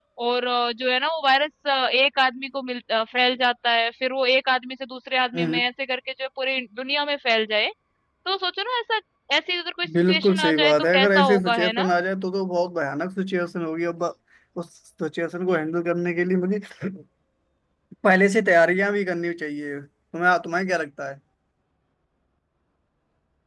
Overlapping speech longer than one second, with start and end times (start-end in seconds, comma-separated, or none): 10.1-11.8